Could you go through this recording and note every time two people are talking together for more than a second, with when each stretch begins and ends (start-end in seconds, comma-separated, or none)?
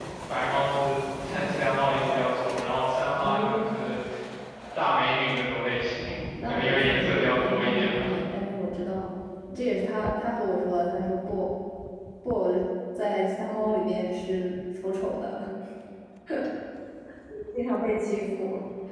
6.1-8.1